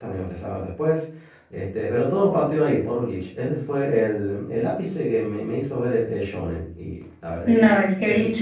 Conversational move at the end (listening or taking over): taking over